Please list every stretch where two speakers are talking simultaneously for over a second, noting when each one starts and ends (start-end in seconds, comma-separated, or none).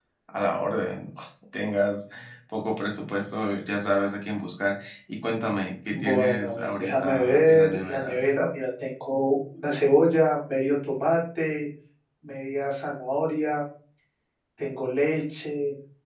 5.9-8.2